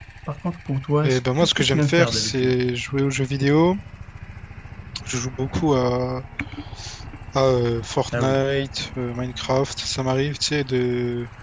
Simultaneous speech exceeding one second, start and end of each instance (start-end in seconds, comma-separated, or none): 1.0-2.5